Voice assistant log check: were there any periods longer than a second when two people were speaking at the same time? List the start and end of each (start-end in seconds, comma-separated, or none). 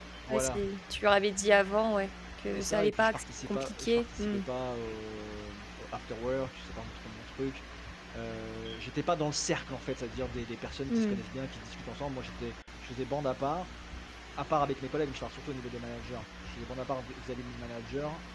2.5-4.4